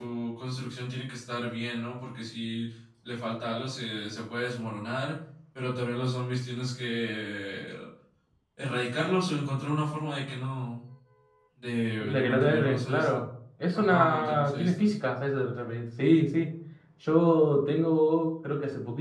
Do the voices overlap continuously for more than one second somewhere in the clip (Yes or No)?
Yes